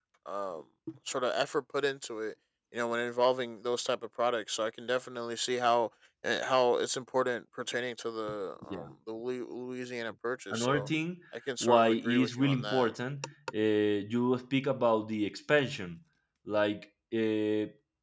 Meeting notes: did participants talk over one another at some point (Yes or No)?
Yes